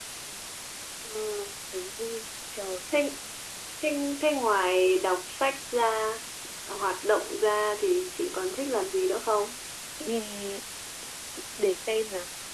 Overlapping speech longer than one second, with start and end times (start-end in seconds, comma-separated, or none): none